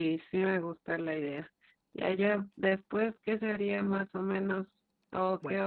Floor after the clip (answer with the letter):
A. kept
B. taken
A